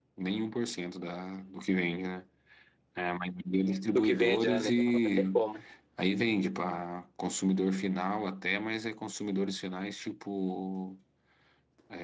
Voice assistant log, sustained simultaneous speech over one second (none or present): present